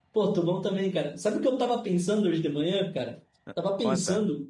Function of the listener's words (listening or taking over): listening